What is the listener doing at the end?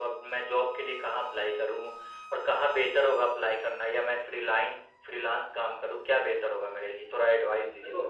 taking over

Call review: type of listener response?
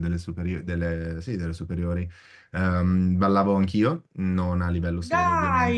listening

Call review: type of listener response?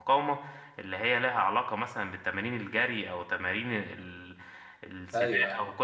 listening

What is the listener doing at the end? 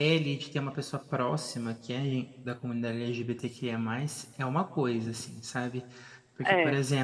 listening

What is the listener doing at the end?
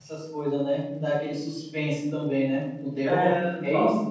taking over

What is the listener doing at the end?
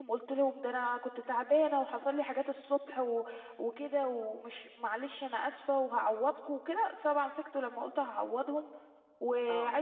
listening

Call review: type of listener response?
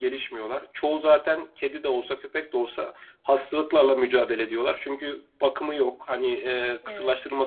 listening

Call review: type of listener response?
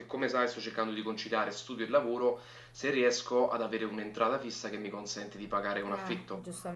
taking over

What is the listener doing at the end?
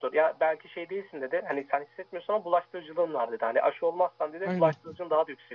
listening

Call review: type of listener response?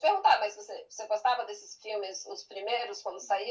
taking over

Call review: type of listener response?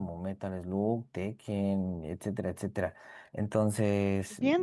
taking over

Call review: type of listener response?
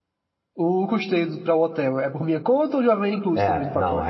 taking over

